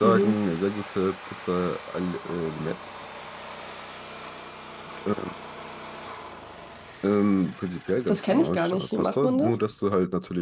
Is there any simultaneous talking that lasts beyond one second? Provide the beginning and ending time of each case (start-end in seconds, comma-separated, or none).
8.1-9.6